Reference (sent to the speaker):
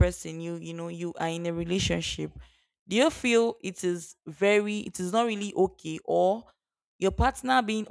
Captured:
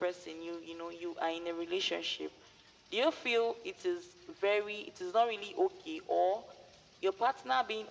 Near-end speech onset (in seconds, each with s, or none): none